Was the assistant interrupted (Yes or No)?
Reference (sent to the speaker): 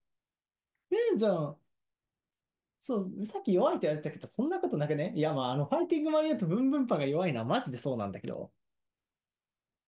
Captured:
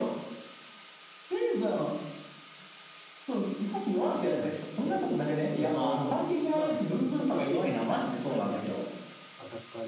Yes